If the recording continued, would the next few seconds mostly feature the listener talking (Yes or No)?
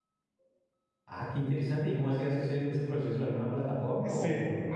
Yes